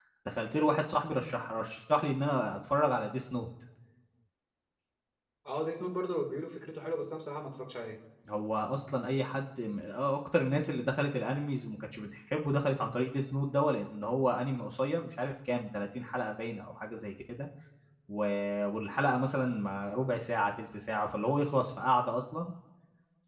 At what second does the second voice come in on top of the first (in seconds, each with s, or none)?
none